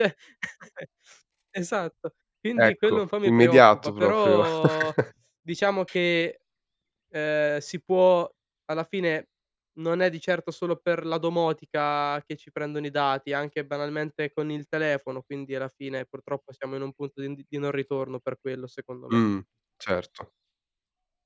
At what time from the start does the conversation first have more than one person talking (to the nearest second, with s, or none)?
3 s